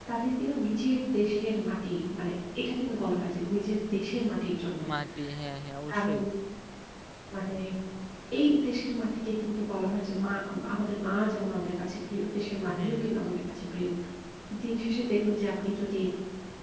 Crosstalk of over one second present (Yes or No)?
No